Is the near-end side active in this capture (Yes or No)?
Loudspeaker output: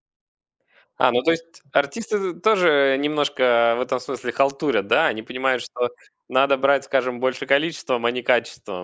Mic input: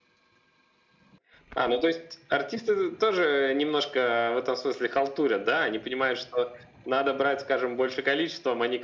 No